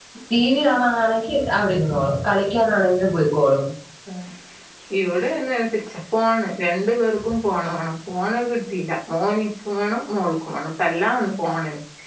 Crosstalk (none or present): none